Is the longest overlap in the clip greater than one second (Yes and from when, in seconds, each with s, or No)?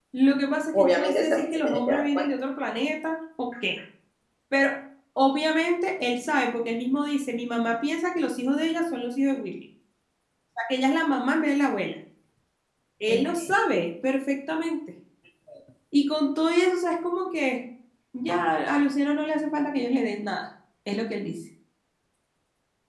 Yes, from 0.7 s